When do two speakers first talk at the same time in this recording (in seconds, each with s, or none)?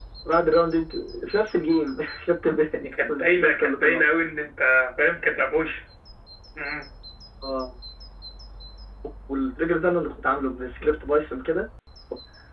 2.8 s